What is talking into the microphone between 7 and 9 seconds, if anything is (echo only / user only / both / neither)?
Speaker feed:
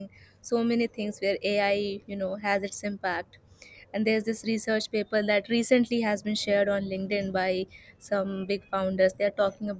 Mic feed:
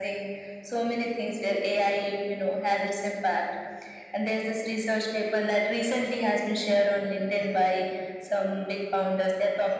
echo only